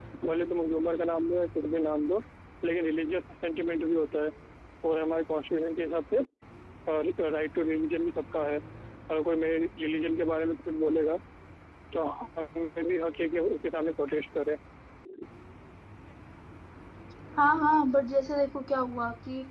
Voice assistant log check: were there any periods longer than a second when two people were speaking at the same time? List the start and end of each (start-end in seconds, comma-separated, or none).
none